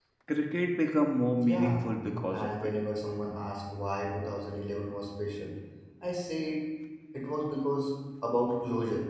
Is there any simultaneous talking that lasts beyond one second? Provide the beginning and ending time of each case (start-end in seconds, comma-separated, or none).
none